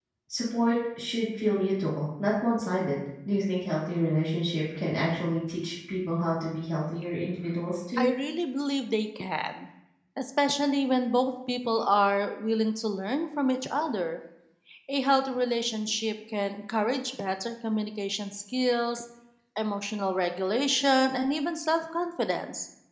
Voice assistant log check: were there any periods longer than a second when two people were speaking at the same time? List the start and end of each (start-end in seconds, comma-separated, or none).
none